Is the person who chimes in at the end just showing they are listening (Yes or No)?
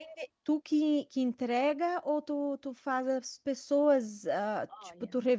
Yes